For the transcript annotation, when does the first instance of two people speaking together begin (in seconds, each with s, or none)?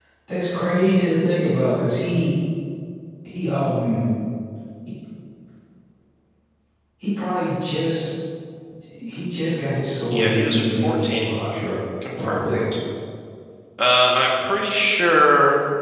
10.1 s